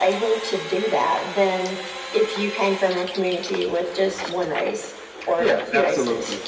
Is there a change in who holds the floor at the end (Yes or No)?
Yes